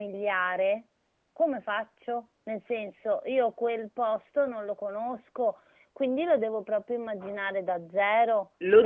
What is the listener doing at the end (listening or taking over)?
taking over